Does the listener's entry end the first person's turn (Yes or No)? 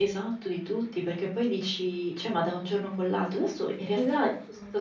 No